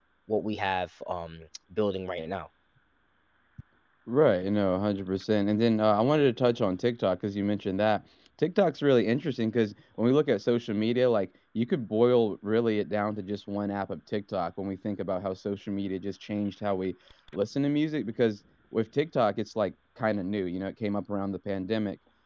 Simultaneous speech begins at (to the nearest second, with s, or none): none